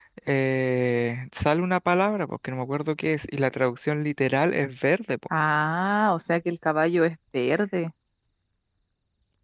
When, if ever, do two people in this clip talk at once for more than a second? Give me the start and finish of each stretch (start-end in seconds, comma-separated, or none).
none